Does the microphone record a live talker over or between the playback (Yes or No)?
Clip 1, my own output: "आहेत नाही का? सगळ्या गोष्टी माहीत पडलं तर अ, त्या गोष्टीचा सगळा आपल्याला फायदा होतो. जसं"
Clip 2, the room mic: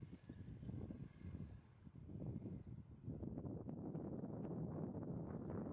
No